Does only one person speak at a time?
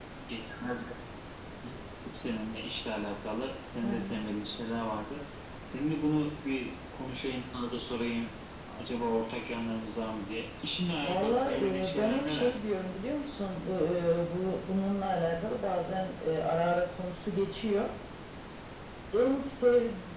No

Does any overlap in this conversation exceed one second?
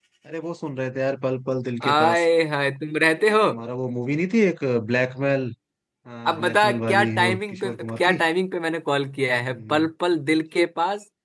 Yes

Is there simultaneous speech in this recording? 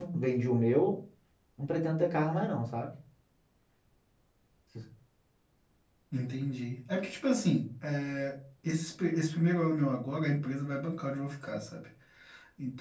No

